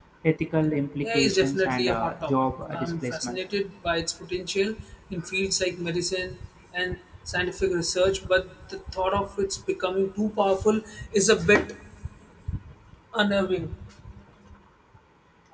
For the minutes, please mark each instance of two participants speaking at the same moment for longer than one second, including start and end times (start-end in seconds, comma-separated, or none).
1.0-3.4